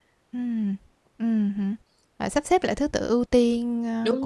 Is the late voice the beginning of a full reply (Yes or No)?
Yes